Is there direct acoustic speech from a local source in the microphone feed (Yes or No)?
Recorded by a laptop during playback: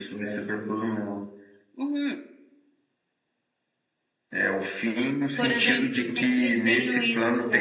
Yes